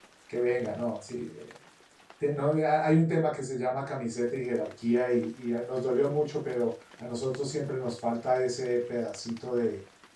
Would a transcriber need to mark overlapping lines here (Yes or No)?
No